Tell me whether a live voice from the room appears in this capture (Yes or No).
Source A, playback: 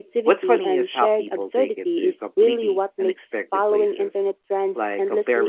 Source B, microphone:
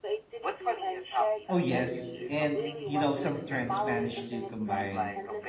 Yes